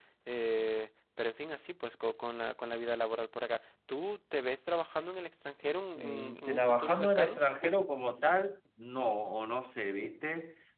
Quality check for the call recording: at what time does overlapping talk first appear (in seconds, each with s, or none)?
6.0 s